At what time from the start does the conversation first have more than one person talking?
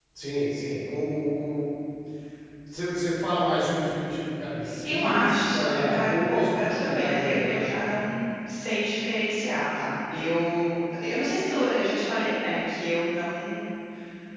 4.7 s

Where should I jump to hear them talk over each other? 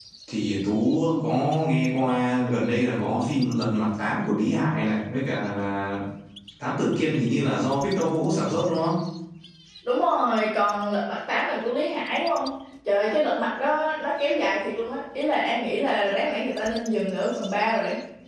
none

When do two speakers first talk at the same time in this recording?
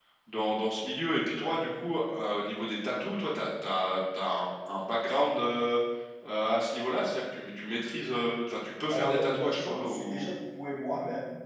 8.9 s

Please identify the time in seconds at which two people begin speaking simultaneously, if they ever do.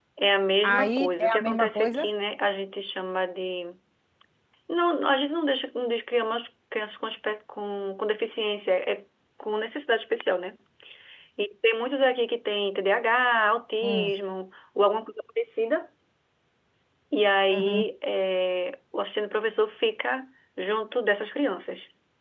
0.6 s

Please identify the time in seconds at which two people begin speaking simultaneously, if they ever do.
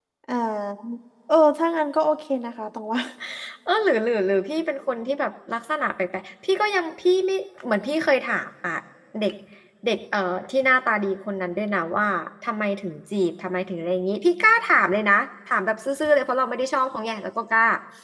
none

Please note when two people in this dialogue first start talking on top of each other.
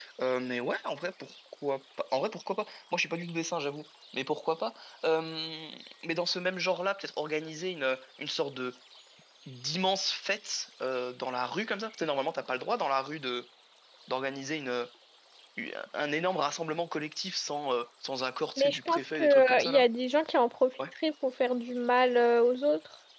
18.6 s

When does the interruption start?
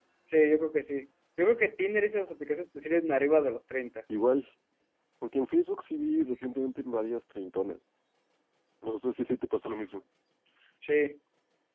none

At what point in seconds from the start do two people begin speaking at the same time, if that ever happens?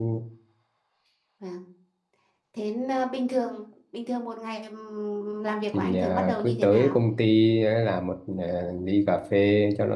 5.7 s

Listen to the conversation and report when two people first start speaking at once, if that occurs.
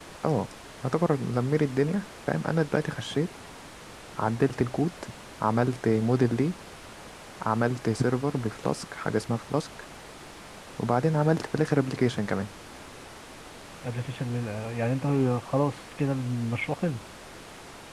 none

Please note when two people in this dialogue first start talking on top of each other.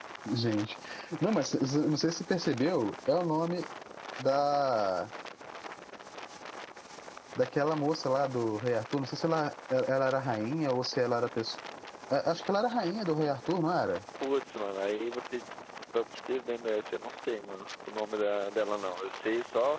none

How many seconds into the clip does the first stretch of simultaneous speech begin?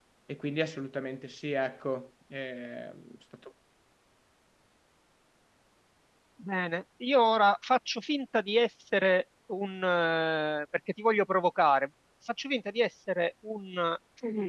none

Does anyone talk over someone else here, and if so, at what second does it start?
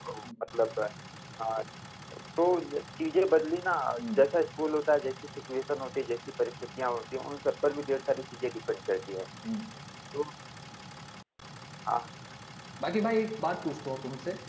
none

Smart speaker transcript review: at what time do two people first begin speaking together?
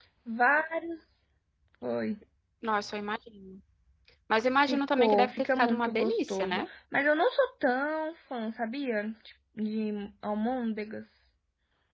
4.7 s

